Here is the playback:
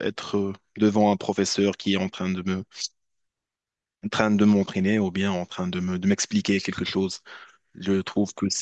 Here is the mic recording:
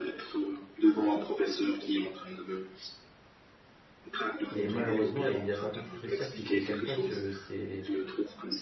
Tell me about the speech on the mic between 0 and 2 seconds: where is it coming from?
echo only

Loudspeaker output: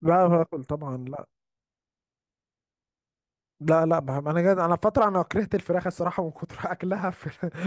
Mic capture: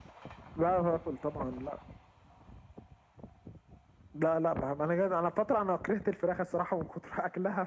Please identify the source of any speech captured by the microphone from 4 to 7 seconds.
echo only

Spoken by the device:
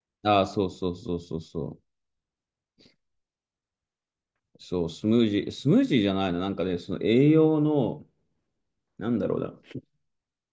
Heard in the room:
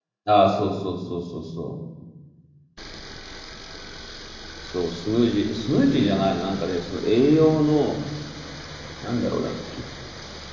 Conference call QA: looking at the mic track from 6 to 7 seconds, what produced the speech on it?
echo only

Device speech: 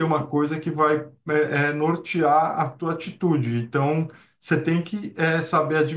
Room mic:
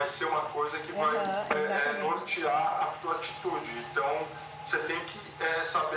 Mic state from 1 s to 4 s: both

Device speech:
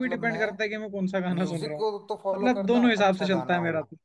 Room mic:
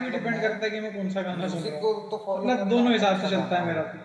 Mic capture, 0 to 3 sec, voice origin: echo only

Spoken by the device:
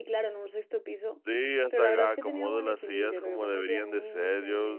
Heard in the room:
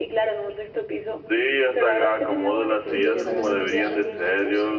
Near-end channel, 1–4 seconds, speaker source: both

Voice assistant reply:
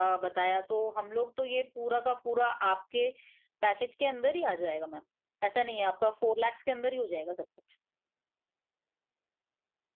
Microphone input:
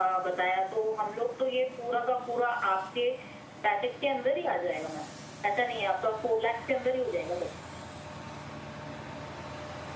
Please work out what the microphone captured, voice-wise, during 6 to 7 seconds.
echo only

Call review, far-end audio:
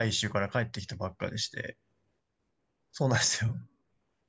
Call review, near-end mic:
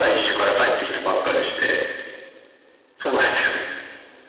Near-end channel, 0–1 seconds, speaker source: echo only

